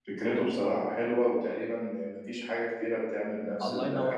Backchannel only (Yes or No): No